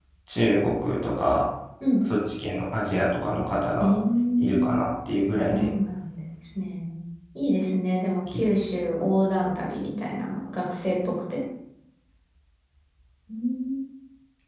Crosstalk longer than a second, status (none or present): none